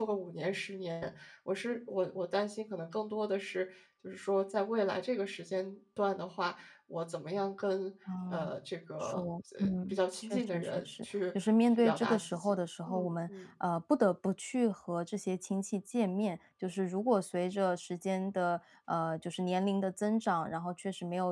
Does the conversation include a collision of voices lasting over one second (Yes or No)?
Yes